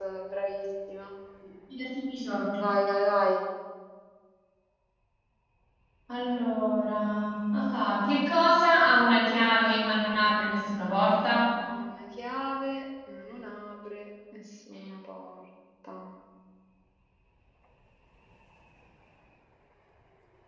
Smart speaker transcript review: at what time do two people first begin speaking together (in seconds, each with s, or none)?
none